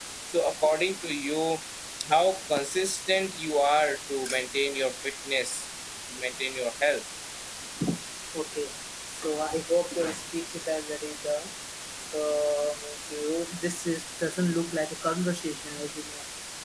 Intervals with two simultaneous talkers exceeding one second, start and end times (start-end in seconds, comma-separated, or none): none